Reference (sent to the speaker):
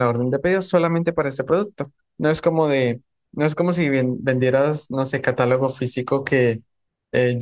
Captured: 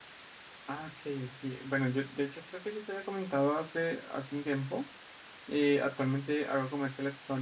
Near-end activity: present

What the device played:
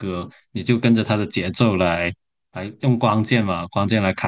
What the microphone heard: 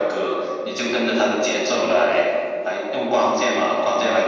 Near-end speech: none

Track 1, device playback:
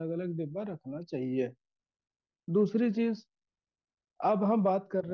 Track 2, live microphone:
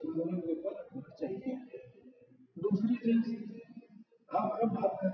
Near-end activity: none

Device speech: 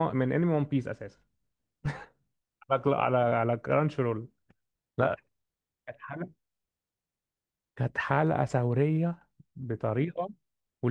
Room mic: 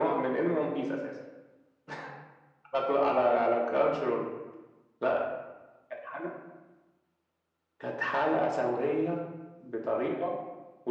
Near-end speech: none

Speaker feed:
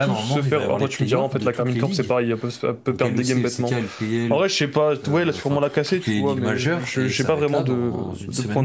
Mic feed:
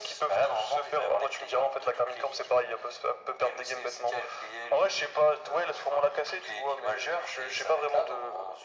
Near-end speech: none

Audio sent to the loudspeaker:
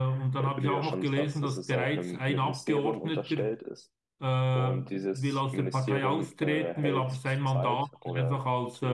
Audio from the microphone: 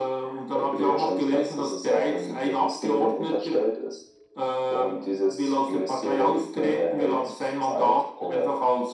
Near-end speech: none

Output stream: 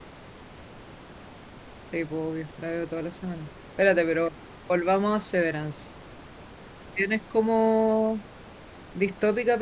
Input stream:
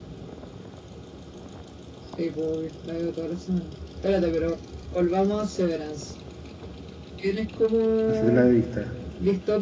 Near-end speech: present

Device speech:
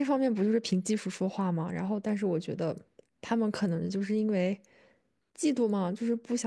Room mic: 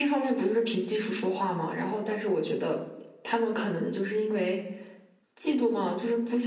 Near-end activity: none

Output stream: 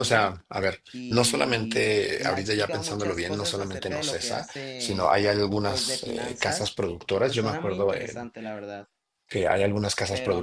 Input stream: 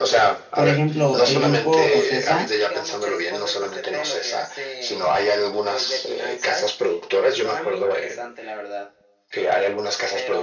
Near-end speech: present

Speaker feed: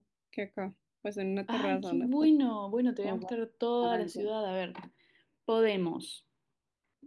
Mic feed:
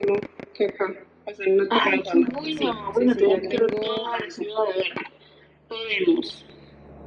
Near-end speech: present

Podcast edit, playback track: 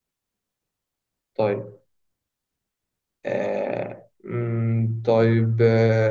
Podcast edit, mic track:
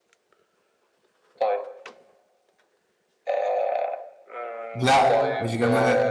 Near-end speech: present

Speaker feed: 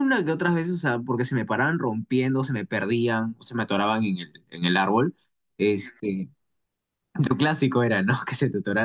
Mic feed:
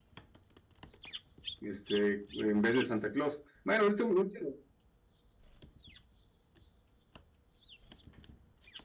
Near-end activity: present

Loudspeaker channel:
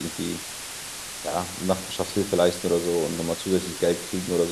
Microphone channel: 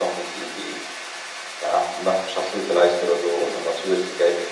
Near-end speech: none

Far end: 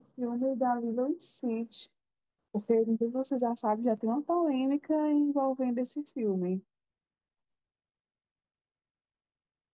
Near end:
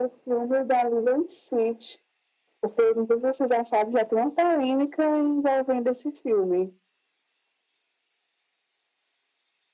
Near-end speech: none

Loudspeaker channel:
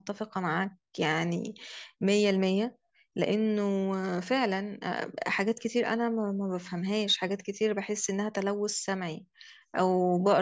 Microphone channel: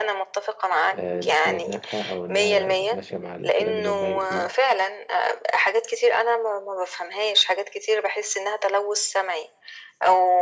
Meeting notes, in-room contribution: present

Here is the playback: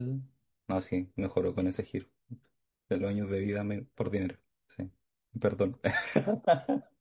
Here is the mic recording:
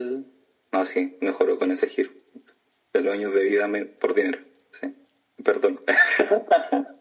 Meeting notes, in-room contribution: none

